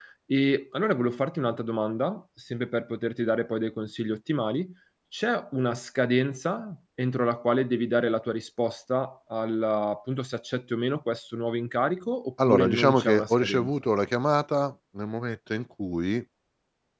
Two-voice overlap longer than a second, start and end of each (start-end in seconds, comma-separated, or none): 12.5-13.7